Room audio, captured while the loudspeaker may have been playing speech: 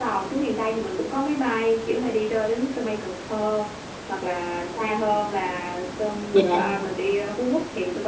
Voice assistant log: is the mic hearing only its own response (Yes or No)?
No